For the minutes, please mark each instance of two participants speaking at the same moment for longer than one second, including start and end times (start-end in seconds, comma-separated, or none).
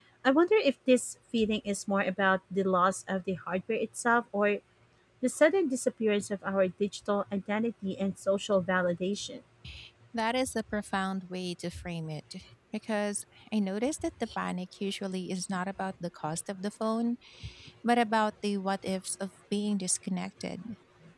none